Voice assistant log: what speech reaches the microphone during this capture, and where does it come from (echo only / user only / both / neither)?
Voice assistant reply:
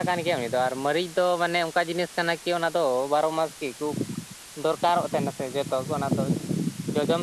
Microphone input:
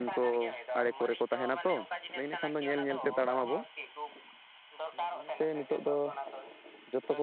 both